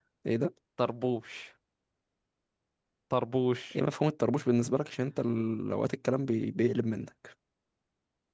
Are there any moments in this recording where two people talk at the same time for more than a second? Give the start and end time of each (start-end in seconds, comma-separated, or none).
none